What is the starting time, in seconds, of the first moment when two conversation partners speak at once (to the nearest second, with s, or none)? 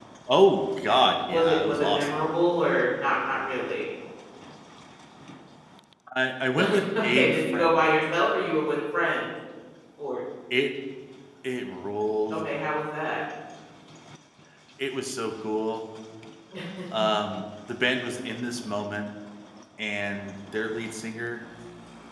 1 s